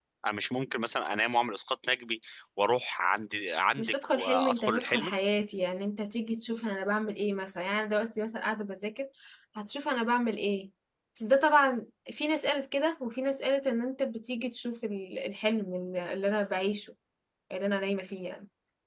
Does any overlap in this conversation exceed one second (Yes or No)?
Yes